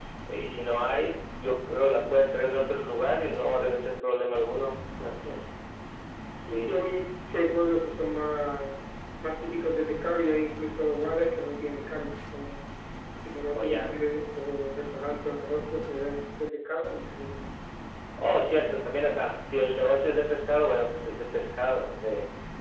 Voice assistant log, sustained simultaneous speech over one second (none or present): none